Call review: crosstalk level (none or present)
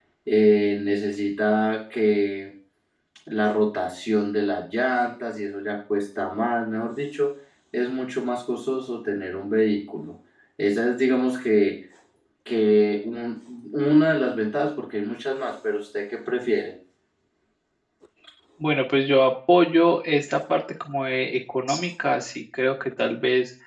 none